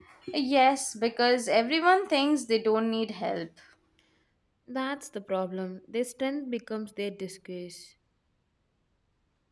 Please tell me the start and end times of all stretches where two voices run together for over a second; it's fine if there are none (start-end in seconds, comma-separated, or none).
none